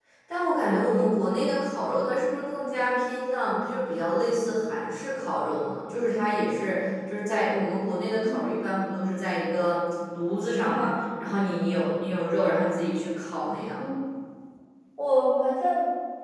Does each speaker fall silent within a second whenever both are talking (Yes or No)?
Yes